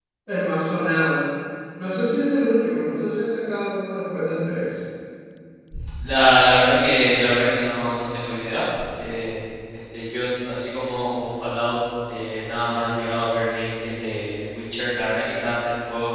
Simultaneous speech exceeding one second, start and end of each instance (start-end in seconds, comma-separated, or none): none